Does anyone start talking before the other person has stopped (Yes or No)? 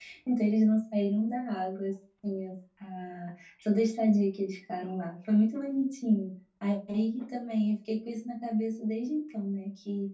No